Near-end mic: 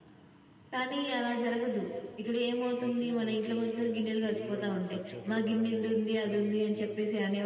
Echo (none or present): present